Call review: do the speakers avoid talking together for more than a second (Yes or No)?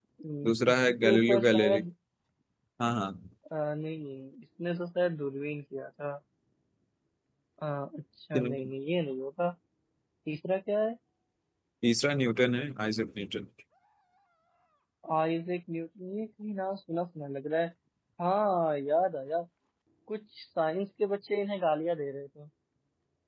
No